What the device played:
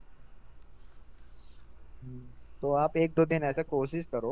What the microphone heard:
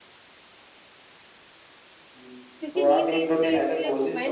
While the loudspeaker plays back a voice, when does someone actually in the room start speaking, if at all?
3 s

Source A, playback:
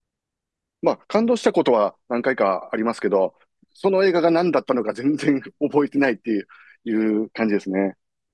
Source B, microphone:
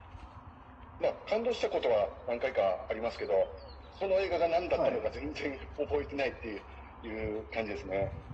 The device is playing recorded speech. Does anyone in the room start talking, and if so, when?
5 s

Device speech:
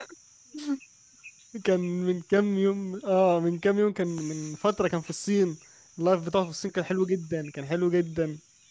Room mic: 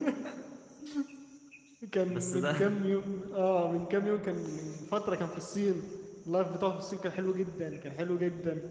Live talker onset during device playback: 2 s

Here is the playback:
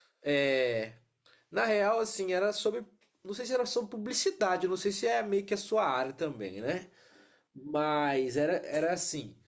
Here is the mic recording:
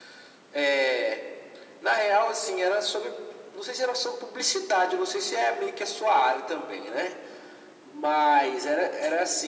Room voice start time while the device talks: none

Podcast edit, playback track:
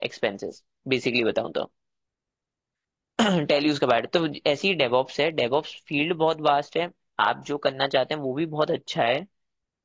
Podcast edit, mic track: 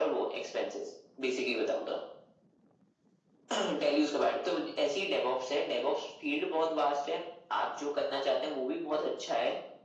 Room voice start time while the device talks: none

